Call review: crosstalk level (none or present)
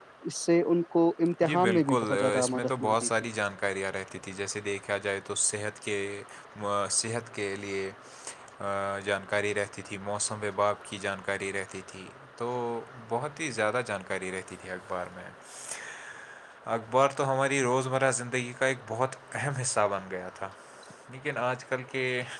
present